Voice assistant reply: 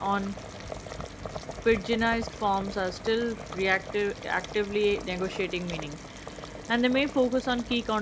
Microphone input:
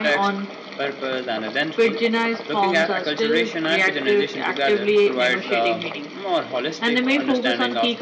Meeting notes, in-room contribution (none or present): present